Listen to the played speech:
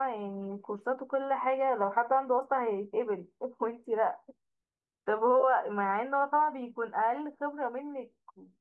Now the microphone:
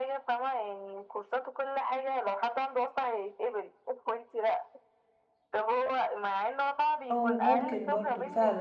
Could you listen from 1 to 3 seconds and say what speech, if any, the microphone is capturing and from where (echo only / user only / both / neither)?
echo only